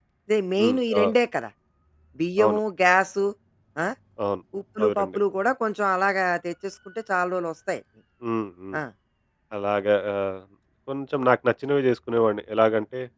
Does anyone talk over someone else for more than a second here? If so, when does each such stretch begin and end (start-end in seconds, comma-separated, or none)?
none